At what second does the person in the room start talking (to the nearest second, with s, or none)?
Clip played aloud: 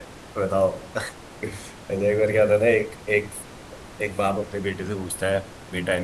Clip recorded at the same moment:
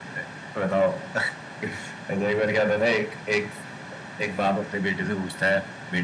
none